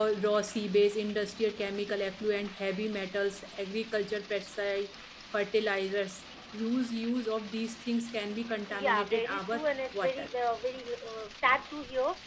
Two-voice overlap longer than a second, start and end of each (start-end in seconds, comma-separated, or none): 8.7-10.3